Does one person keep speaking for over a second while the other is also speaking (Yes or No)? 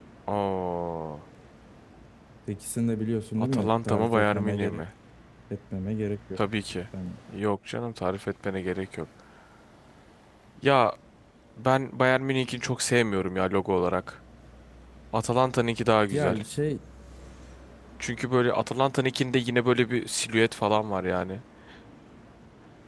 Yes